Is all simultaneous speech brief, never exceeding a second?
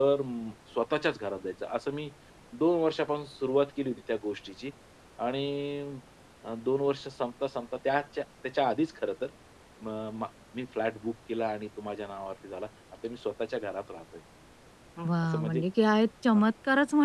Yes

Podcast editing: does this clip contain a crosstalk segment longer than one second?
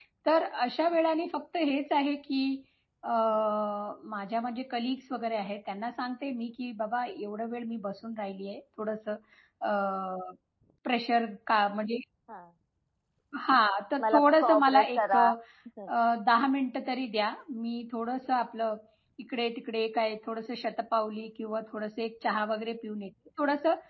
Yes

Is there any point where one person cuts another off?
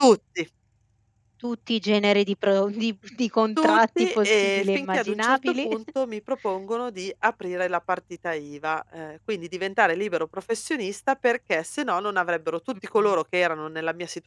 Yes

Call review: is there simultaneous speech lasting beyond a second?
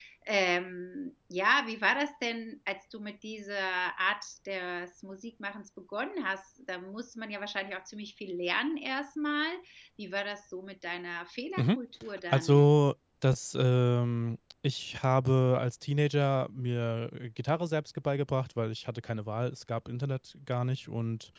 No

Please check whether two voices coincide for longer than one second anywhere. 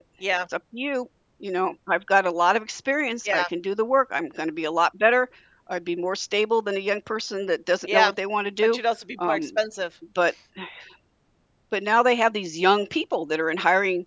No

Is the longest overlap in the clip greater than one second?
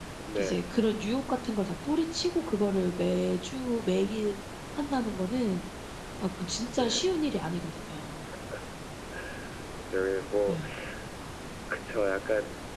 No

